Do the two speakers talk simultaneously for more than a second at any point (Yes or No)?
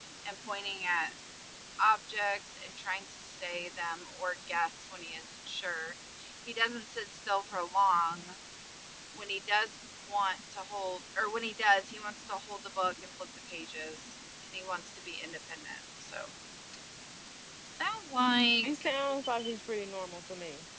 No